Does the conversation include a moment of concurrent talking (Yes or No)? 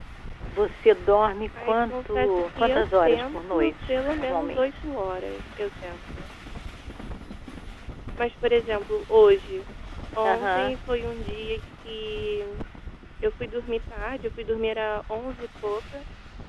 Yes